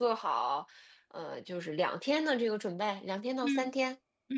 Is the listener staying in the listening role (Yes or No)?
No